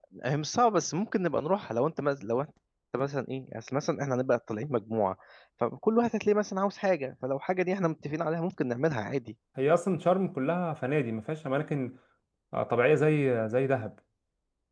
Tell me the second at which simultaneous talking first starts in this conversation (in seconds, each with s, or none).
none